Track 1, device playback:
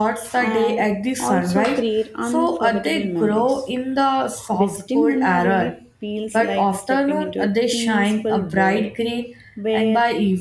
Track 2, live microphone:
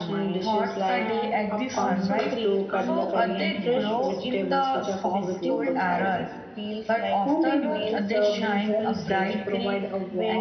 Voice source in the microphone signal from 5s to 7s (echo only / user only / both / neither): both